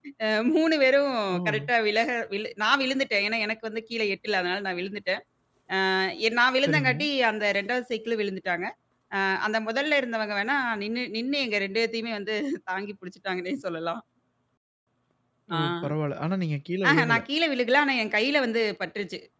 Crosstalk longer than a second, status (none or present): none